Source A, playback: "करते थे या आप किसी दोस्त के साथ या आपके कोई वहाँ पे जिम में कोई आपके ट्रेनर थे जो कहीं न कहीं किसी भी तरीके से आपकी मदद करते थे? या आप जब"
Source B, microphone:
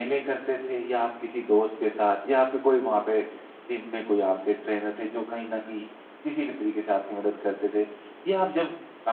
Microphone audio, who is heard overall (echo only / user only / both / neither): echo only